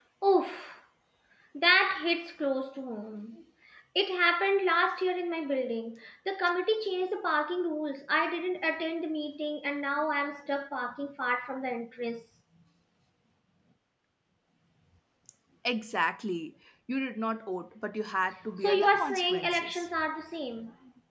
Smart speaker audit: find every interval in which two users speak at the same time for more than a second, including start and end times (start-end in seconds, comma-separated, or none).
18.6-19.9